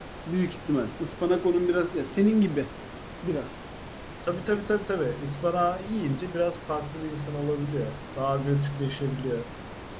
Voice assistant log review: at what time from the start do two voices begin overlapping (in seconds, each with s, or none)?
none